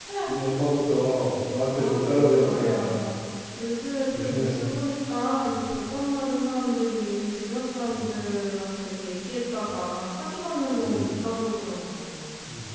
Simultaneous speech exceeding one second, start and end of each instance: 1.7-3.0

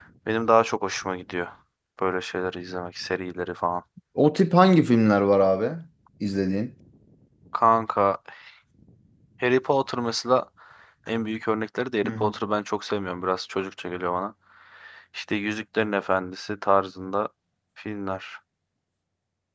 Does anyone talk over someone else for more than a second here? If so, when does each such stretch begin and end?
none

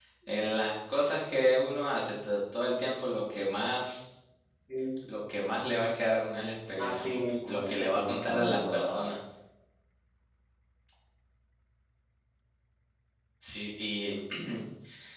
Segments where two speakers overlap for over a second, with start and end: 7.5-9.0

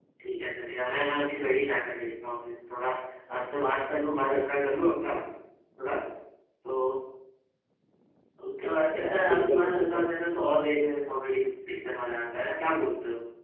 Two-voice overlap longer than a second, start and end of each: 9.1-10.4

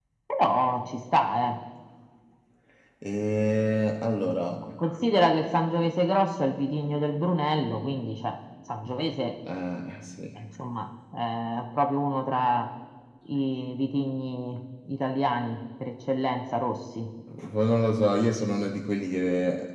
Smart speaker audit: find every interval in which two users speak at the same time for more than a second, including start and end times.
none

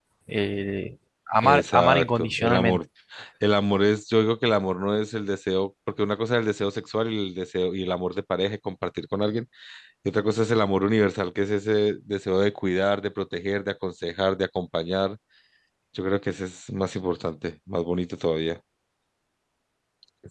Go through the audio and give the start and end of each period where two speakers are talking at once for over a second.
1.4-2.8

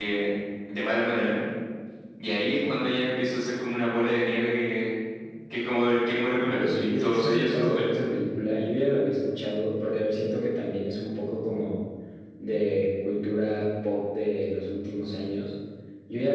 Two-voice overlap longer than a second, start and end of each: 6.3-7.9

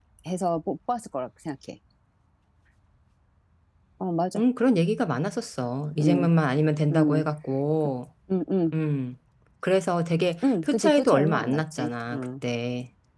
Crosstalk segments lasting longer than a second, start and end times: 10.4-12.2

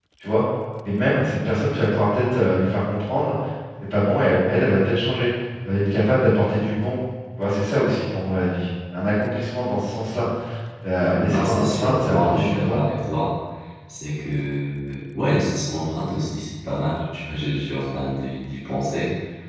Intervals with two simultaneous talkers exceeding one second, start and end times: 11.1-12.8

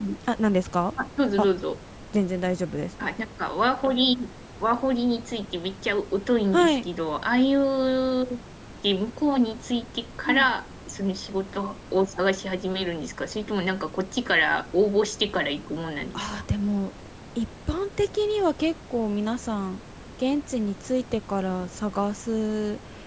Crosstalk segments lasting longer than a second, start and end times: none

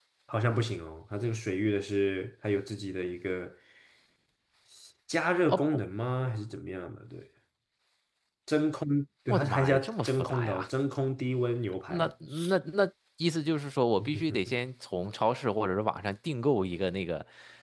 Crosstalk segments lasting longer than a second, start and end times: 9.3-10.7

